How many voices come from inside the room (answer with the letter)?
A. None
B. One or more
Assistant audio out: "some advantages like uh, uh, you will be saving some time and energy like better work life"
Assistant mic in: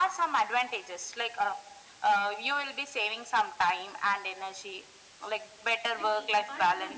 B